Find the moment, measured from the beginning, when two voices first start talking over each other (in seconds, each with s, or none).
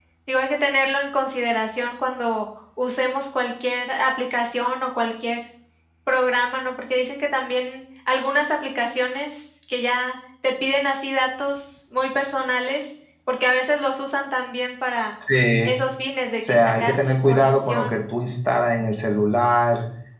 16.5 s